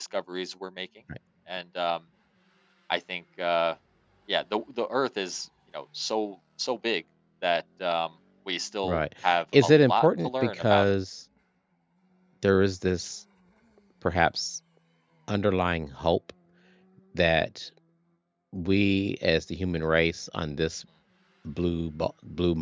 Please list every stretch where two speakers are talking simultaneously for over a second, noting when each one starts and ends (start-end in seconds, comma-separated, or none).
9.6-10.9